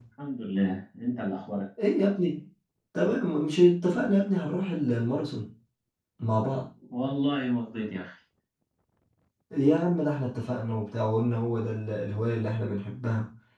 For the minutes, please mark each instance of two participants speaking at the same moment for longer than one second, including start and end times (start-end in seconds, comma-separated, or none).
none